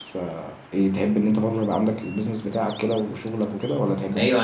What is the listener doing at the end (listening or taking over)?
taking over